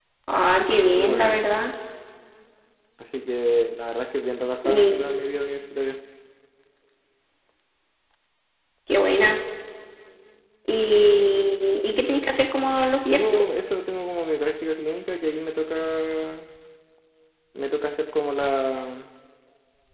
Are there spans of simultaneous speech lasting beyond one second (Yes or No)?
No